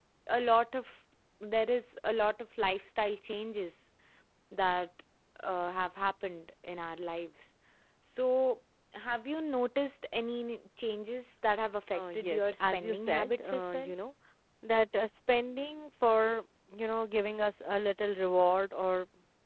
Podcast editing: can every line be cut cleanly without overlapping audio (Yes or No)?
No